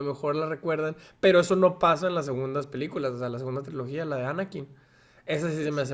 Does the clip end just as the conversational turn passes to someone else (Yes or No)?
No